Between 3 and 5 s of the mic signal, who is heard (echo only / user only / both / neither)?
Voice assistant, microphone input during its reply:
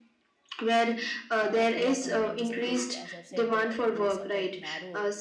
both